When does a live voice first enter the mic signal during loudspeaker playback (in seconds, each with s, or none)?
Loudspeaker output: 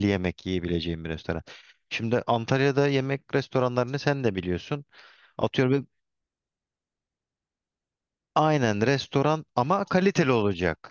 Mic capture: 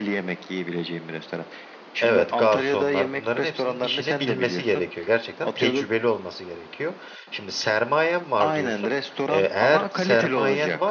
2.0 s